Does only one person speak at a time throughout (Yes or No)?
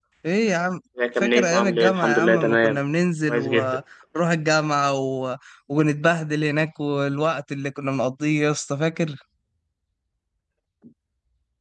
No